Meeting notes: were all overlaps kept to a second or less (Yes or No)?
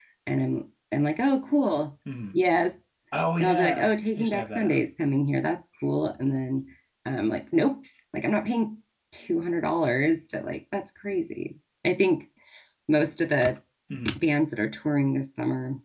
No